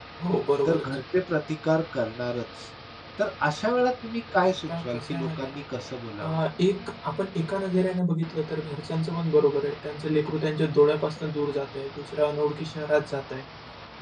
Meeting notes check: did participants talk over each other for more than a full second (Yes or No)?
Yes